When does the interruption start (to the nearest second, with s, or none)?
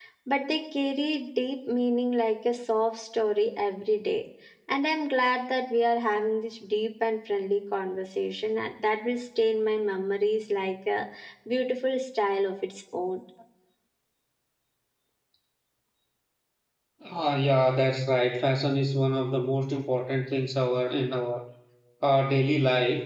none